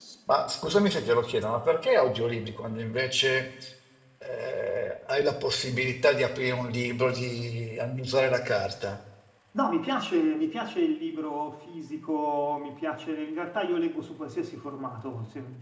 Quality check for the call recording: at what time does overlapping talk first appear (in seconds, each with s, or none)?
none